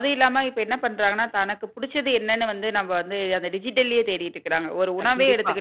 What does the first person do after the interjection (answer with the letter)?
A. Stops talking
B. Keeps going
B